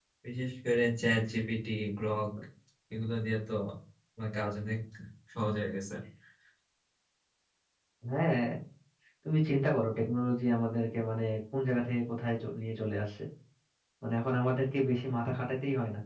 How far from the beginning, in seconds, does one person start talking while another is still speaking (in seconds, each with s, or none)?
none